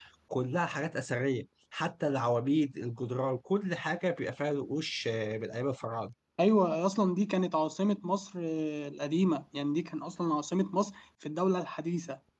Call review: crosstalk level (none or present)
none